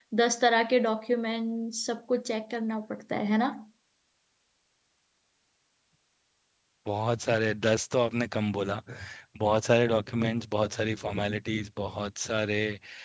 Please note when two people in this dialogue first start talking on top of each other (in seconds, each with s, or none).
none